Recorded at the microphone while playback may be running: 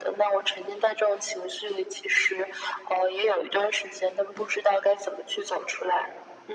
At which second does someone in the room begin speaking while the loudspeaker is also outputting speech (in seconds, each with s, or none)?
none